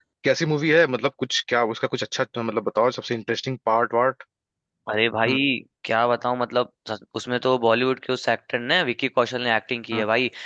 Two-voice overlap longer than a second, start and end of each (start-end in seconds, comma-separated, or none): none